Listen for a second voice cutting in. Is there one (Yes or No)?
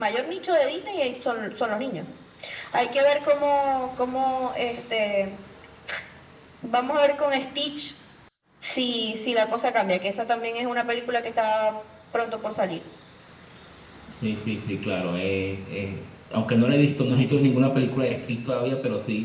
No